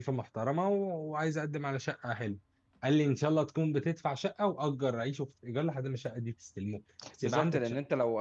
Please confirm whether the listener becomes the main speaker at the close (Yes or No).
Yes